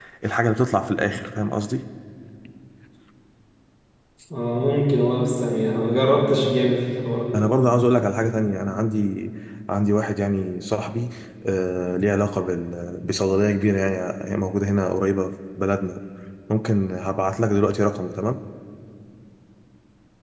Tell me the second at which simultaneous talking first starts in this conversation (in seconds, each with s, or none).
none